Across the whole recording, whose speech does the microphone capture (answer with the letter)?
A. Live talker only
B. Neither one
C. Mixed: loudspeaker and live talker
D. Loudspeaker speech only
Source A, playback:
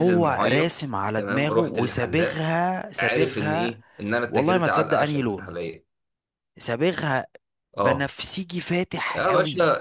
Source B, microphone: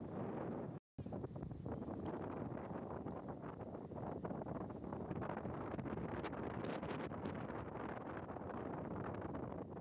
B